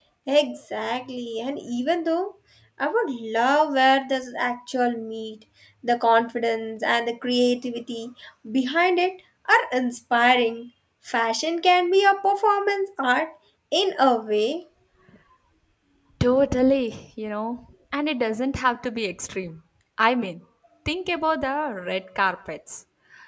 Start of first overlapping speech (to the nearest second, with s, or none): none